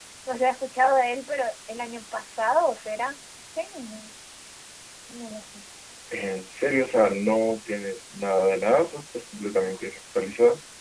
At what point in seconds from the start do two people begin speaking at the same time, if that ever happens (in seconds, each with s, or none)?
none